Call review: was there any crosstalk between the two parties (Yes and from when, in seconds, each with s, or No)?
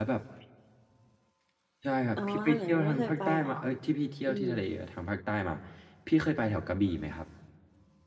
Yes, from 2.2 s